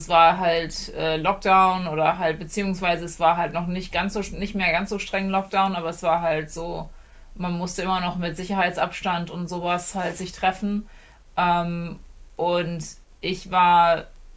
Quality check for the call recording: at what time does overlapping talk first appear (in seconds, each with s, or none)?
none